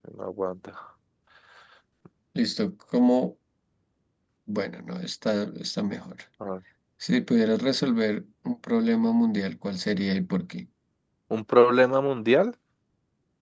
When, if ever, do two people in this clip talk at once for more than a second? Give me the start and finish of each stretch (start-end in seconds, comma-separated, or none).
none